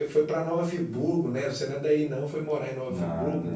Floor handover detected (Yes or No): Yes